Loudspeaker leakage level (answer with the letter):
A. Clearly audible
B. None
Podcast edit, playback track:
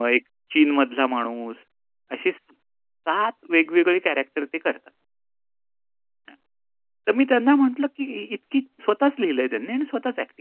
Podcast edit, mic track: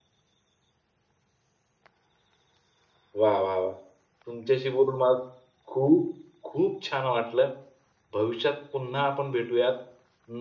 B